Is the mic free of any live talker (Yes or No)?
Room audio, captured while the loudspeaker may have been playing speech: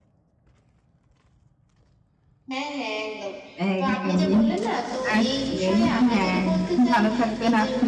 No